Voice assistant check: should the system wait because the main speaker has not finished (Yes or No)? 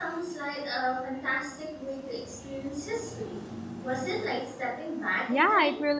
No